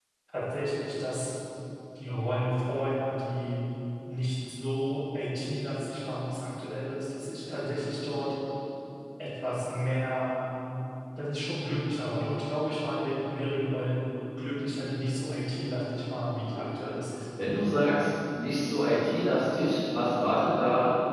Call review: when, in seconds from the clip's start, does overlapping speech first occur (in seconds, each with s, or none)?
none